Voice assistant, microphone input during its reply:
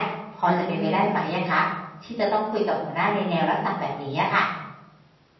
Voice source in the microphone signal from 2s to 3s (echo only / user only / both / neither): echo only